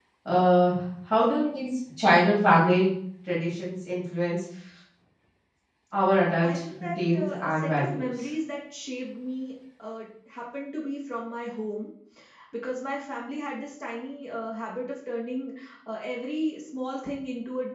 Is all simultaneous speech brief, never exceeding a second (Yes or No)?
No